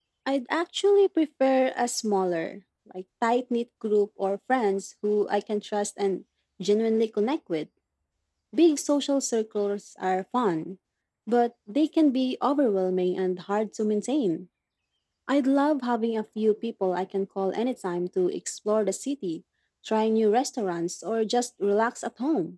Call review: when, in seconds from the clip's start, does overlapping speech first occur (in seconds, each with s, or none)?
none